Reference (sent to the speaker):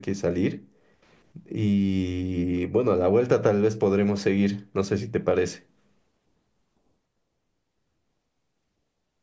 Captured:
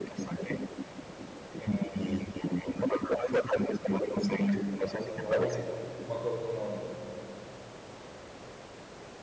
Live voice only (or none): que parece hawaiano, no me acuerdo su nombre.